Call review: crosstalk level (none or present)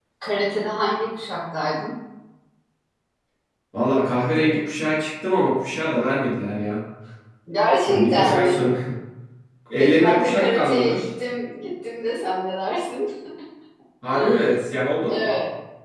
present